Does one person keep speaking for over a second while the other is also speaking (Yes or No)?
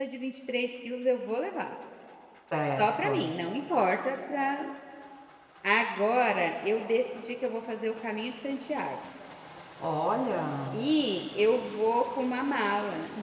No